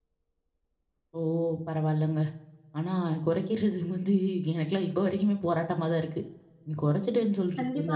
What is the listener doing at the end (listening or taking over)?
taking over